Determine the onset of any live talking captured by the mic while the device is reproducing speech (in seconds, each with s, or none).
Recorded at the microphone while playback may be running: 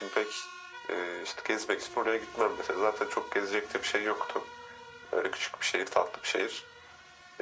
none